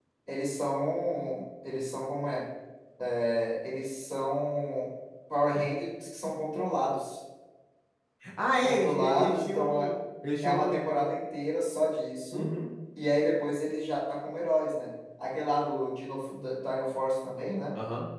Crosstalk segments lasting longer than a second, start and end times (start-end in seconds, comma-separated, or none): 8.6-9.9